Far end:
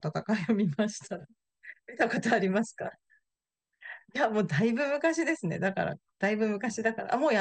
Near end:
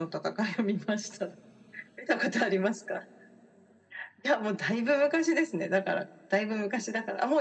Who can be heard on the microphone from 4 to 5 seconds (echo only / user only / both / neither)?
echo only